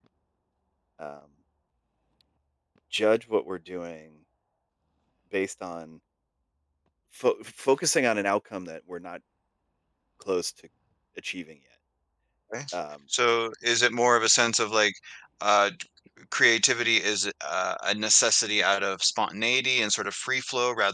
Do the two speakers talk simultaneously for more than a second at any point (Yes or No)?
No